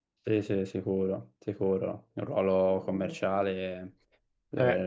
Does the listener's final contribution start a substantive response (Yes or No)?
No